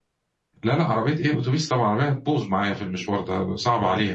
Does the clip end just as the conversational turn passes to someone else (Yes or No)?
Yes